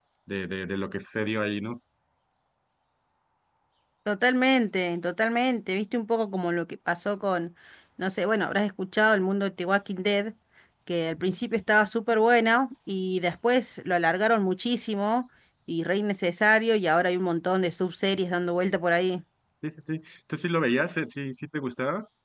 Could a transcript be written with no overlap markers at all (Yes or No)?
Yes